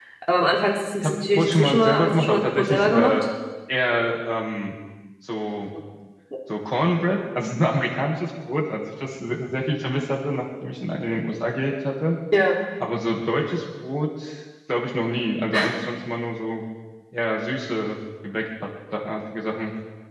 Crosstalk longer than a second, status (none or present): present